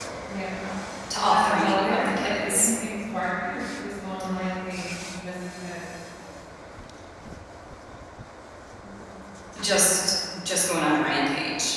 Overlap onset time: 1.3 s

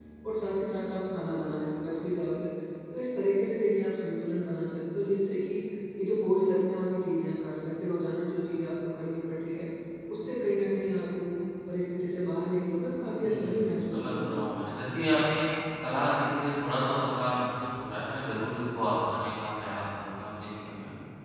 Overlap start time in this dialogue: 13.2 s

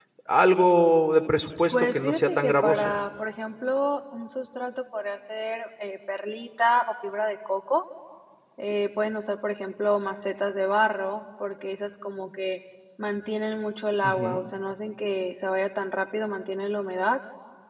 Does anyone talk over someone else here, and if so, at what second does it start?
1.7 s

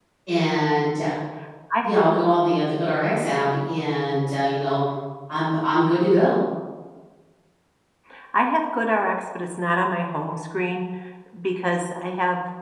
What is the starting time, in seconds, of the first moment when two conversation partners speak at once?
none

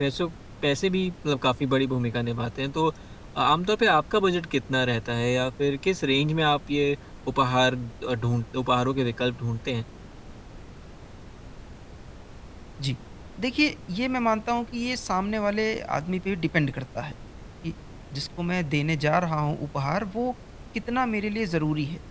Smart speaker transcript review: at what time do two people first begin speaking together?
none

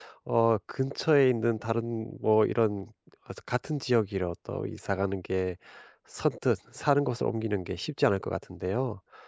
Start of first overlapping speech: none

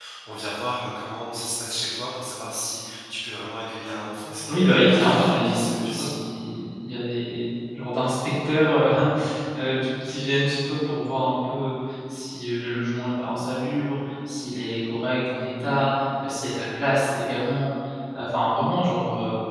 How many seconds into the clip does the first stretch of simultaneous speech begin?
4.5 s

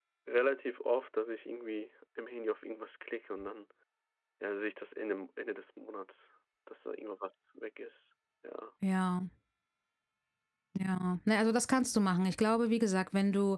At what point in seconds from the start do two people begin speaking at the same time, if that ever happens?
none

